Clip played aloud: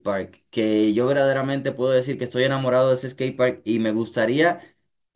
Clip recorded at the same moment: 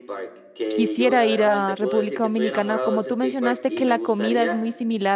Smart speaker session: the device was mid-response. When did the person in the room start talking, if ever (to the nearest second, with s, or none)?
1 s